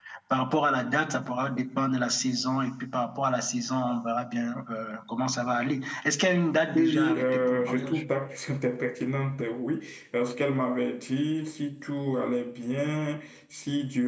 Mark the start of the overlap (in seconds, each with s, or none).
6.8 s